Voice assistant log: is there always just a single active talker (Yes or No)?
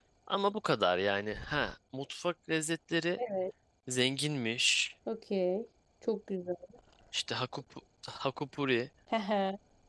Yes